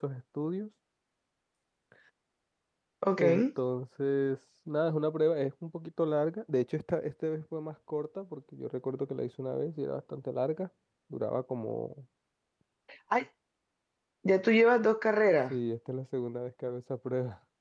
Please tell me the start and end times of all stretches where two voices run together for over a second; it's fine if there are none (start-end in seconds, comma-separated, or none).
none